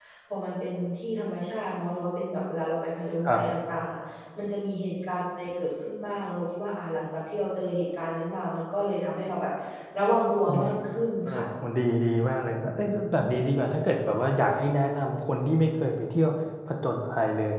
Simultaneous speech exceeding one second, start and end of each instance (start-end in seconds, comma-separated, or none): none